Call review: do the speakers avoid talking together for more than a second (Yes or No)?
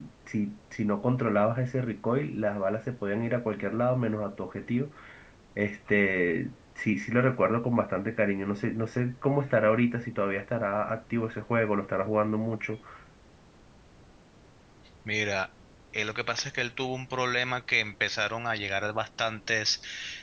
Yes